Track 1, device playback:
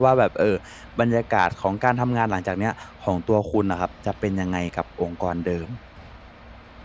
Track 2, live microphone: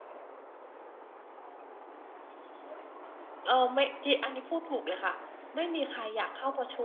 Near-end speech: present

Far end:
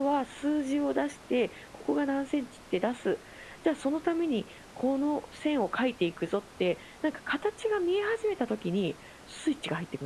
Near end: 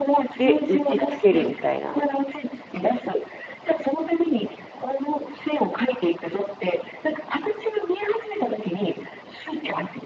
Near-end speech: present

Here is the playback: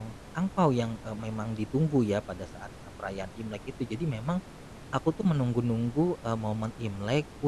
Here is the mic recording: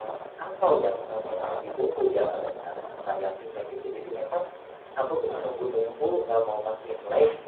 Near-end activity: none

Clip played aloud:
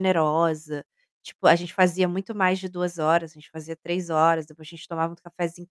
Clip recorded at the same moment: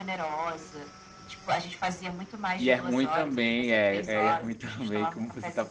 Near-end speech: present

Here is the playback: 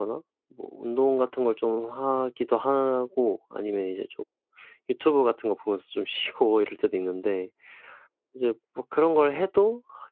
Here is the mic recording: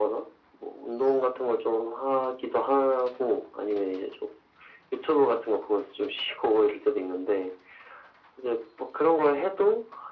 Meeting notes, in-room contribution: none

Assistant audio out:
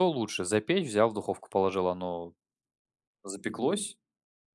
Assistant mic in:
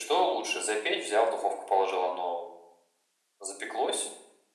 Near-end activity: none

